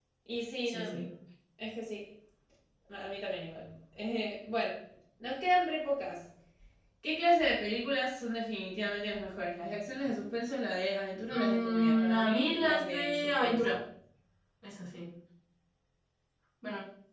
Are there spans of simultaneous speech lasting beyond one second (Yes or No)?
Yes